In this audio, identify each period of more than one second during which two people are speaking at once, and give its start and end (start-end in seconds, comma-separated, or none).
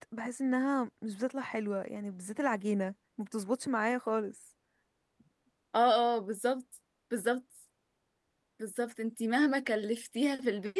none